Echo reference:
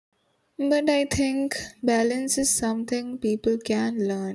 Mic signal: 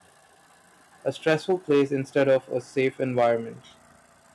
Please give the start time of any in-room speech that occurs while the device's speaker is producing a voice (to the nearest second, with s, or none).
1 s